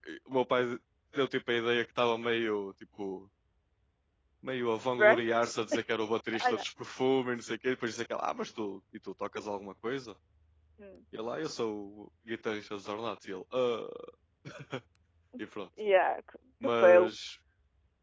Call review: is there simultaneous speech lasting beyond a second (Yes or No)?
No